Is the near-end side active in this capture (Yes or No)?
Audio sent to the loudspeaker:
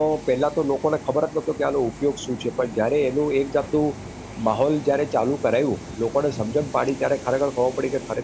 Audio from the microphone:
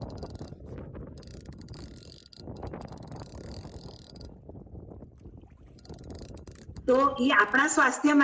Yes